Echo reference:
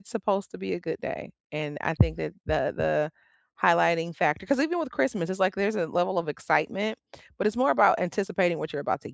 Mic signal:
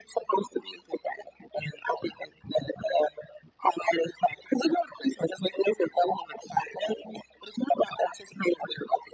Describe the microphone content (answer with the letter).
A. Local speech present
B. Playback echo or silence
B